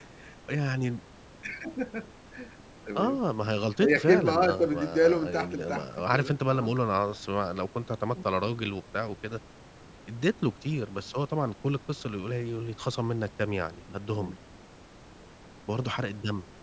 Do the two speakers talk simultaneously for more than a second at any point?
Yes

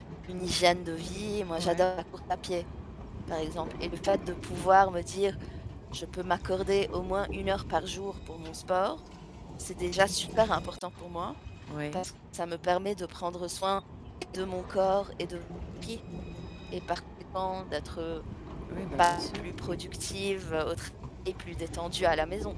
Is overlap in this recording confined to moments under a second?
Yes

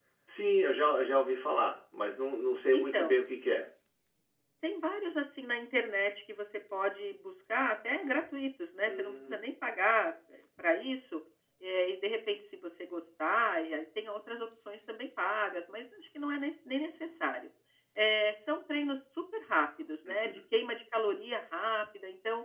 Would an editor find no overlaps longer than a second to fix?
Yes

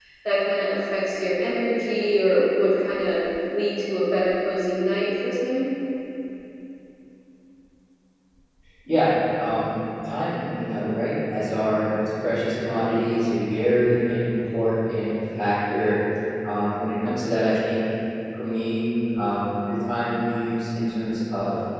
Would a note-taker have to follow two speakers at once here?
No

